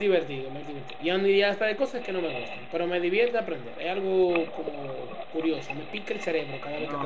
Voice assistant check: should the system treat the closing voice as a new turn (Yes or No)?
Yes